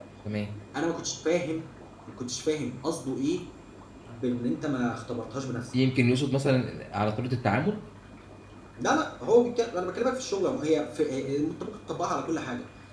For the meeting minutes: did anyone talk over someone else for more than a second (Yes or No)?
No